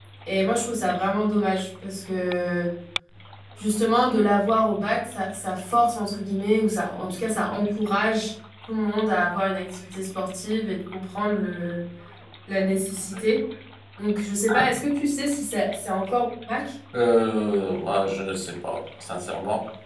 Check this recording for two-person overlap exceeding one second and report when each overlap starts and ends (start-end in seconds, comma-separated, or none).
none